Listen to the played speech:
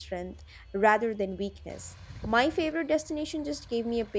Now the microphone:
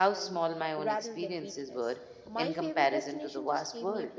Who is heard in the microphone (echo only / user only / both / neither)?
both